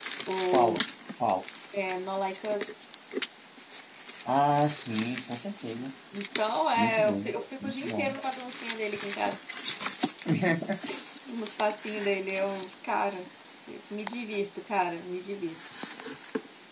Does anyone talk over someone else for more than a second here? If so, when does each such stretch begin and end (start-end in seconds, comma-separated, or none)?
6.8-8.1